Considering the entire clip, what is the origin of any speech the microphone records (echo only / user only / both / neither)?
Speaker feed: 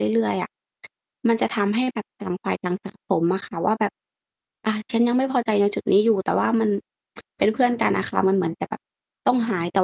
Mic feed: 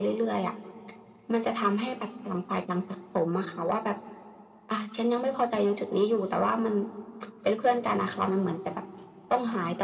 echo only